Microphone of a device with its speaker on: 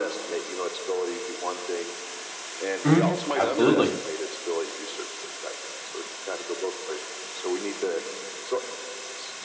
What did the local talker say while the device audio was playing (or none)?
hmm Absolutely.